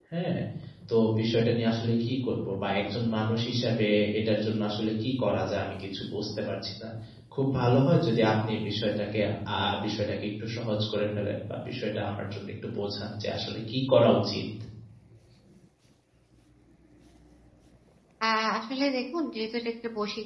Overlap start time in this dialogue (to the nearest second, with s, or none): none